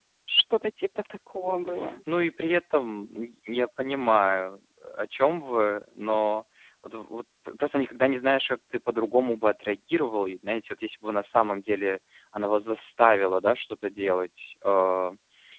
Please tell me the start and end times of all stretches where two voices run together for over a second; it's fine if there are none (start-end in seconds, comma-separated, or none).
none